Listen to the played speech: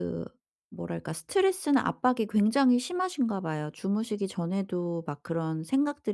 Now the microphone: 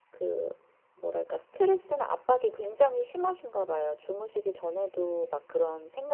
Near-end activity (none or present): none